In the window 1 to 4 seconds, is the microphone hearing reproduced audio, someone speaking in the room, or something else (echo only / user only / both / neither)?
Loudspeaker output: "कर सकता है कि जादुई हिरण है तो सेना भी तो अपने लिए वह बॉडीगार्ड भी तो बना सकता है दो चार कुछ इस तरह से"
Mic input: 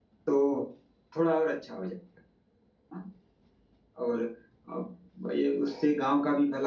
user only